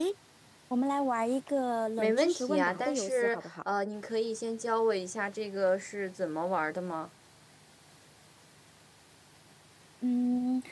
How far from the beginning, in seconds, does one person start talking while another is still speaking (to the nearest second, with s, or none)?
2 s